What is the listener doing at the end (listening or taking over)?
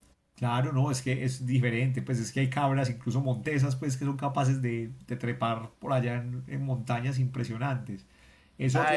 taking over